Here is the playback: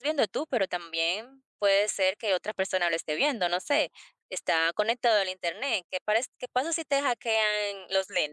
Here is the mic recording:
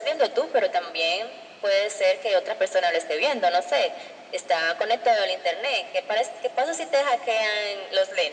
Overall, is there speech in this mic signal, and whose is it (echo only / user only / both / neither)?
echo only